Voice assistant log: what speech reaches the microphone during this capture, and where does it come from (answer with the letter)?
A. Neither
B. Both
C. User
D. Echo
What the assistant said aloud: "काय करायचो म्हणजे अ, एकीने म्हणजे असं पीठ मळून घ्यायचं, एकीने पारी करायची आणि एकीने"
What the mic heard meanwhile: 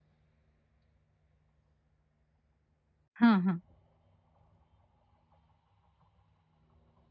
C